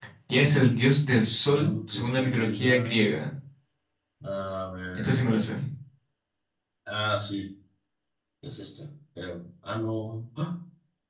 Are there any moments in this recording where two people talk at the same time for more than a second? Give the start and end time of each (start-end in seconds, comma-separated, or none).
1.4-3.0